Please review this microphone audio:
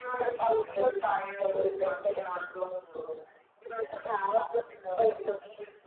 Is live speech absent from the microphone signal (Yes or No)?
No